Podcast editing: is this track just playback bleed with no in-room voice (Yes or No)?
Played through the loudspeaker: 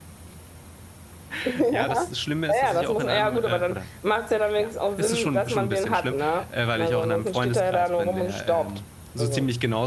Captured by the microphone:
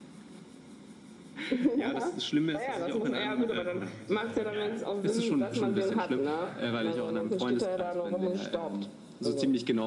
No